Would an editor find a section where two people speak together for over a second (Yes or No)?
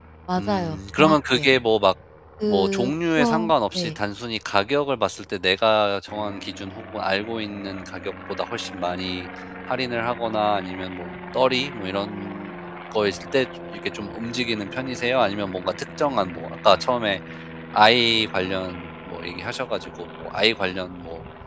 Yes